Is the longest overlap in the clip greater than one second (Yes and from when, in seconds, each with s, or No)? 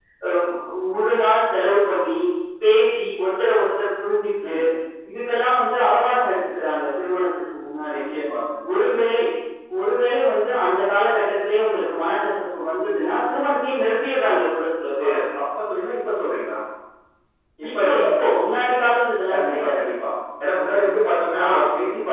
No